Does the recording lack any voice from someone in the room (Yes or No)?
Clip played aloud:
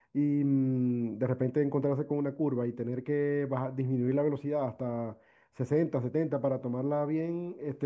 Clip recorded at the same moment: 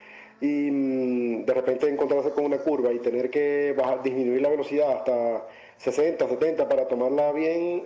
Yes